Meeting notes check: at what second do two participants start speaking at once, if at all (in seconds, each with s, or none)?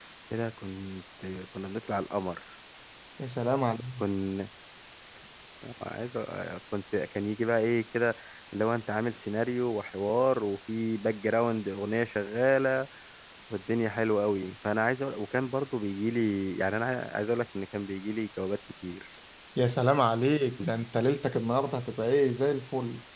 none